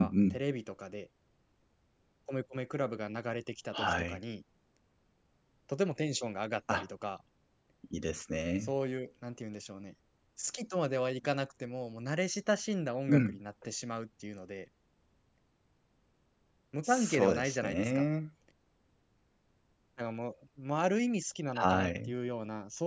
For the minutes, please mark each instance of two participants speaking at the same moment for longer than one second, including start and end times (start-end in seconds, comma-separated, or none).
16.8-18.1